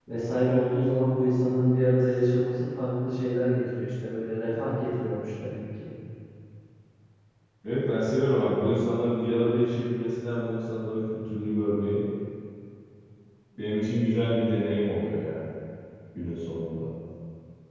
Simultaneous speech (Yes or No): No